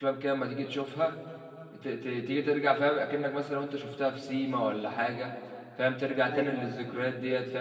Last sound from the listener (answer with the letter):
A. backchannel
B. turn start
A